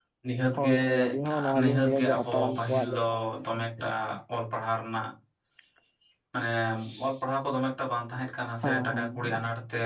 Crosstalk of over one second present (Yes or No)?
Yes